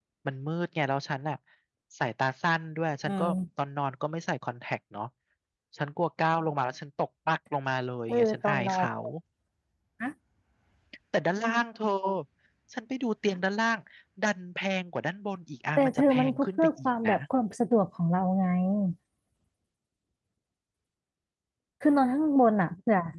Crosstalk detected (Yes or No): Yes